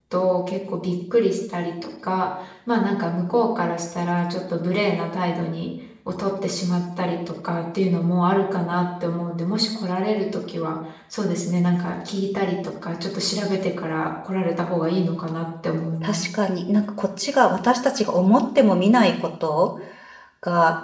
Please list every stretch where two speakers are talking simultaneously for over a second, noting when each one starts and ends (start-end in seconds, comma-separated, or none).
none